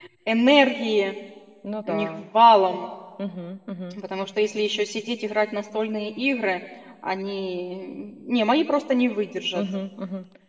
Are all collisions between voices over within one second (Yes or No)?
Yes